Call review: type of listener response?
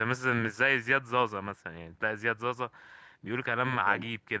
listening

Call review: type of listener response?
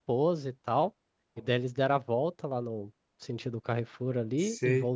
listening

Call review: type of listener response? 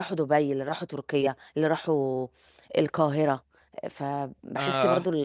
listening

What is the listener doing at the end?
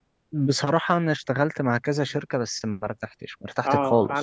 taking over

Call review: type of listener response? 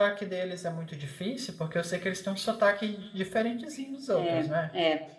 taking over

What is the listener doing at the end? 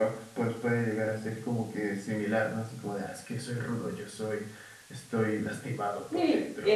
taking over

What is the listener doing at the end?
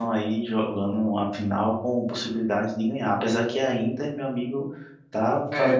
taking over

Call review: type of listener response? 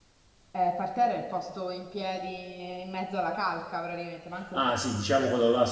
taking over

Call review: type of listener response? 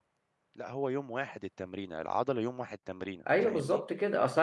taking over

